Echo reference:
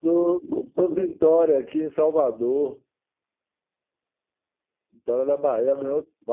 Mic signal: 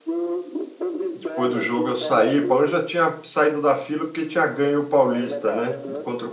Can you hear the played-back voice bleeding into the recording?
Yes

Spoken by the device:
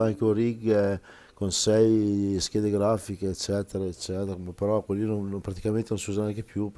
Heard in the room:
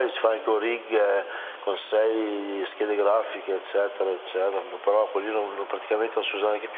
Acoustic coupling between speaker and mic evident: Yes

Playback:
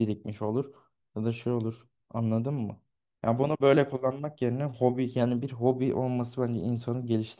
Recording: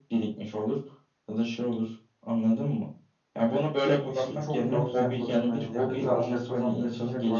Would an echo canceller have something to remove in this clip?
Yes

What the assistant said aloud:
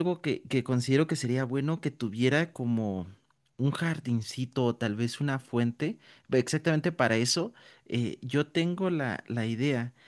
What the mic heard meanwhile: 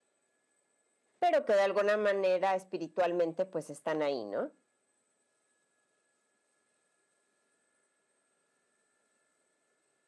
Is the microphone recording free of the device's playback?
Yes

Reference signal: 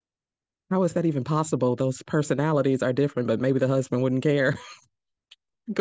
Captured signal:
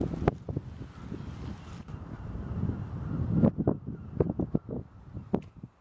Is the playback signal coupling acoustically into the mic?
No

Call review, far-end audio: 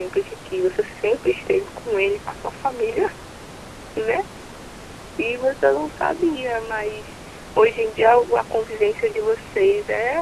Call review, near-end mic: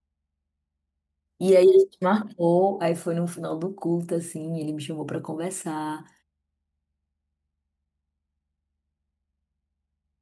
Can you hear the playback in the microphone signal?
No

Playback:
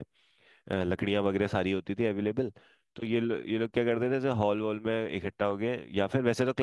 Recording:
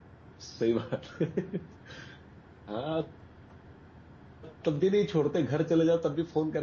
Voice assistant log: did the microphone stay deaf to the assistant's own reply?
Yes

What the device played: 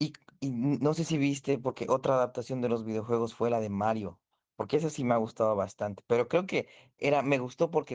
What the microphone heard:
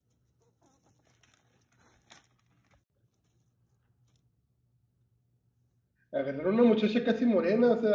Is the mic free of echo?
Yes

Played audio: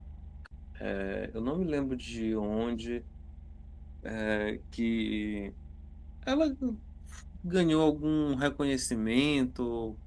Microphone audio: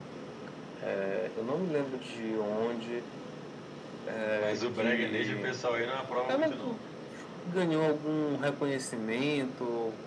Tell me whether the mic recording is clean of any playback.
No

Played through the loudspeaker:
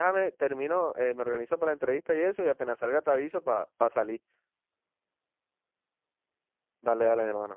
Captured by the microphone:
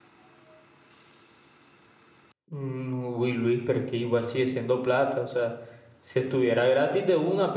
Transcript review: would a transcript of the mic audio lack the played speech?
Yes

